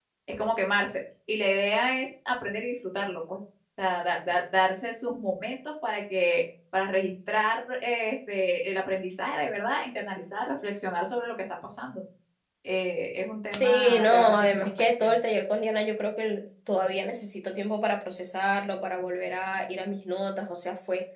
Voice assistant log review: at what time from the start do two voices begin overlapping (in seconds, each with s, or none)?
13.5 s